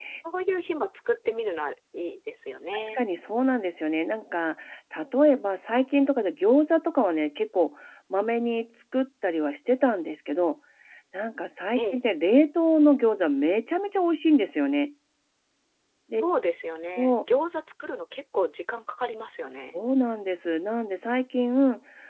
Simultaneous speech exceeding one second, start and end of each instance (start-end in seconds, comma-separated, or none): none